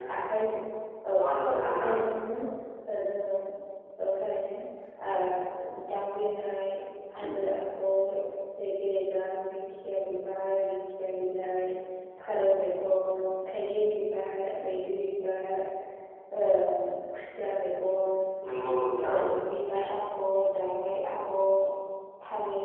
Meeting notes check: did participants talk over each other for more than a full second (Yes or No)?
No